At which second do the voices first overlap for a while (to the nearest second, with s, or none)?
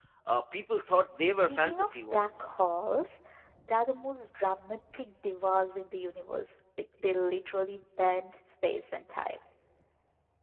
1 s